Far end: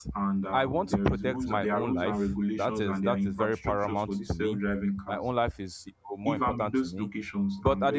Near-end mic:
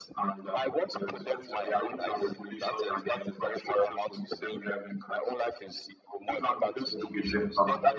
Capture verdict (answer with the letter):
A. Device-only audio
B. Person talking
B